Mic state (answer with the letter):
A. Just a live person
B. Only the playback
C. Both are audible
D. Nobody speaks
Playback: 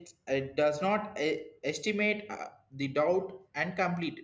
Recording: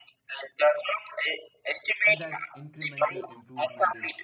C